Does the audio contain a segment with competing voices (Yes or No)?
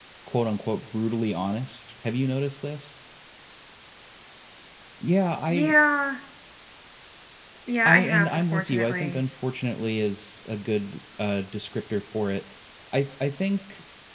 Yes